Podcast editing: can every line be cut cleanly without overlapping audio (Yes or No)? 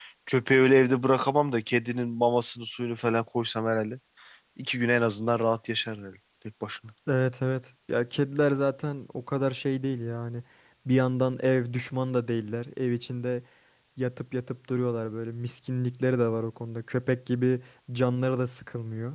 Yes